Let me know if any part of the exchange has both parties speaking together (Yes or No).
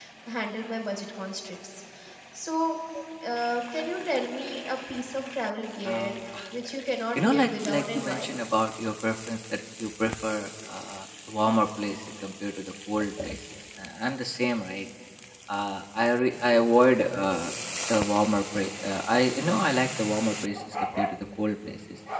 Yes